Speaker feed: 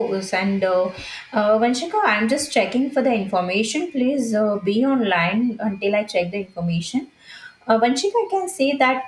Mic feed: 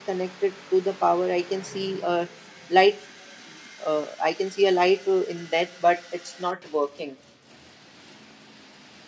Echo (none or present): none